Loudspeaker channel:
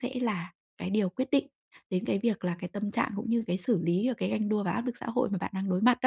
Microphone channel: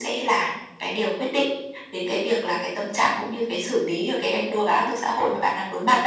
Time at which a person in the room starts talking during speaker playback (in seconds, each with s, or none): none